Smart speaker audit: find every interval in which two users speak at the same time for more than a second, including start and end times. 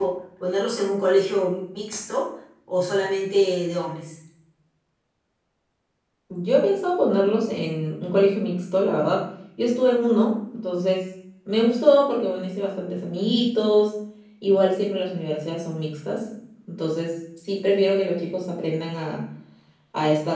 none

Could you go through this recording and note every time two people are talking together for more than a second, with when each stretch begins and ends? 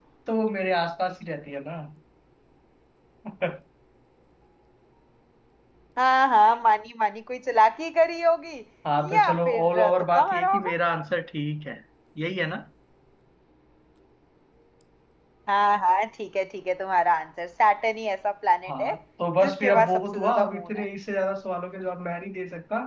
9.1-10.7, 19.4-20.8

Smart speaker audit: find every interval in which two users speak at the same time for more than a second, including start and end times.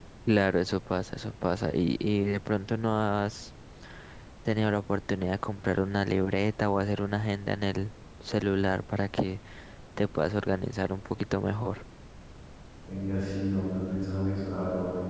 none

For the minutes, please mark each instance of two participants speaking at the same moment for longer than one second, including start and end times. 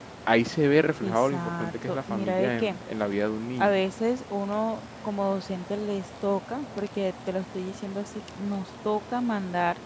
1.0-2.8

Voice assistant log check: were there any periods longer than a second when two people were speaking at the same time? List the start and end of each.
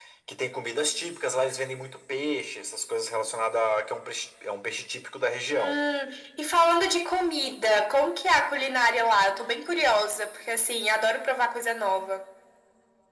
none

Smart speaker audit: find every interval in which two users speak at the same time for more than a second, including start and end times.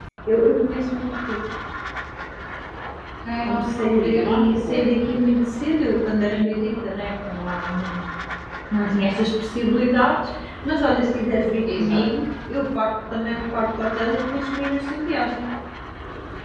3.4-5.0

